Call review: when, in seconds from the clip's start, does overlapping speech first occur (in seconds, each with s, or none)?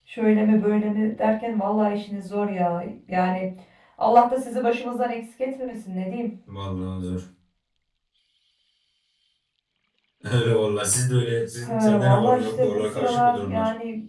11.7 s